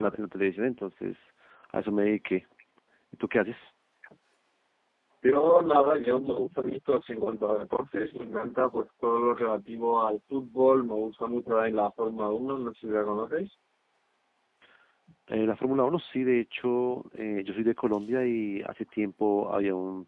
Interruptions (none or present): none